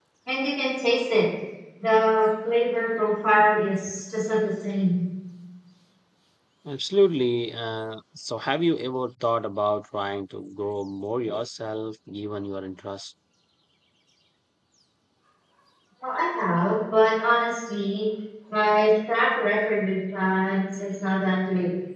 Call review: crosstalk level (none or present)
none